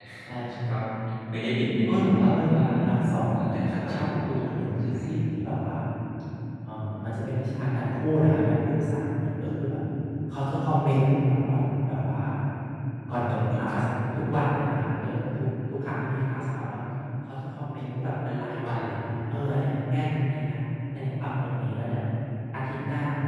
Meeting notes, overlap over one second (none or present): present